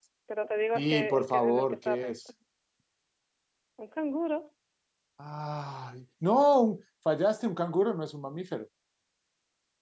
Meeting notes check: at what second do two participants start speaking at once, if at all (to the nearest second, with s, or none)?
1 s